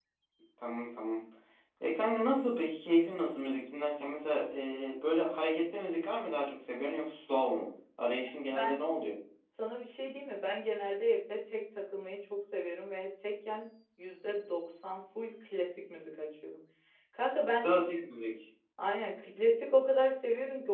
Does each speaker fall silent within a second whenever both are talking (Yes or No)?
Yes